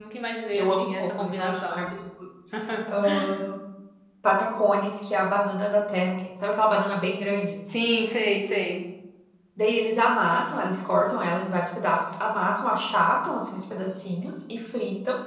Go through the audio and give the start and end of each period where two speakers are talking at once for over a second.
0.5-1.8

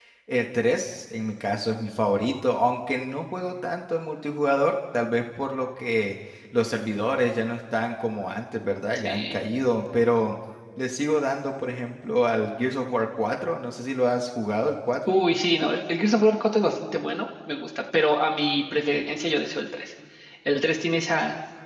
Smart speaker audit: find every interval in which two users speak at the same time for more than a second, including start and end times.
none

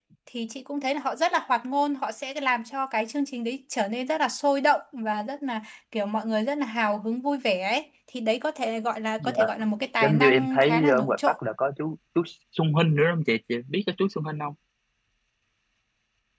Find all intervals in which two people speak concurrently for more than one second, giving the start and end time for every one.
10.0-11.4

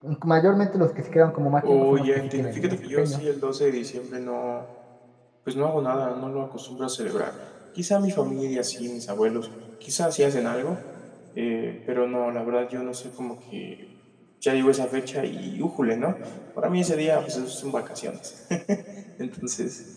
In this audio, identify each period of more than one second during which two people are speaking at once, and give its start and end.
1.7-3.2

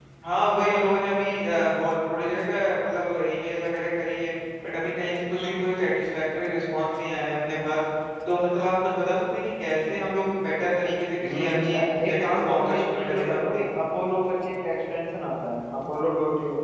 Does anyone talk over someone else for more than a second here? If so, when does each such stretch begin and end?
11.2-13.6

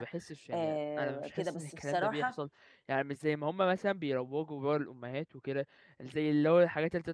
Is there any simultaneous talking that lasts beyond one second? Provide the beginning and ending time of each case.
0.5-2.3

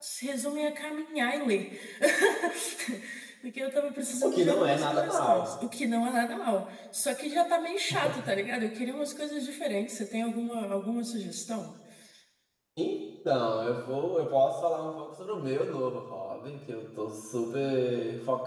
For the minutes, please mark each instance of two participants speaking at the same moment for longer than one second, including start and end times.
4.2-5.5

